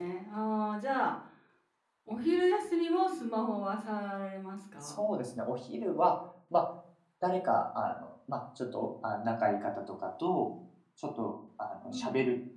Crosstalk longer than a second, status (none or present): none